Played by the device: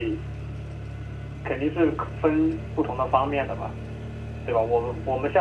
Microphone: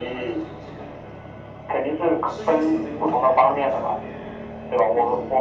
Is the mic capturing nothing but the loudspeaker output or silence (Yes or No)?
No